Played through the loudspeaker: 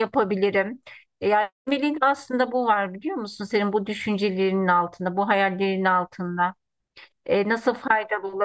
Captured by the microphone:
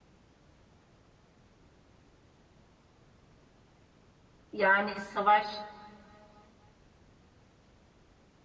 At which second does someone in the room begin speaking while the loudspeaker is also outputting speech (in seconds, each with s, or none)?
4.5 s